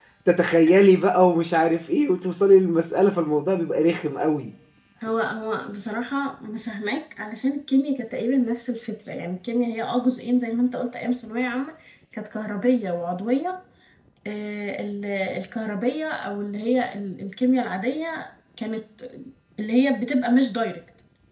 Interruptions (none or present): none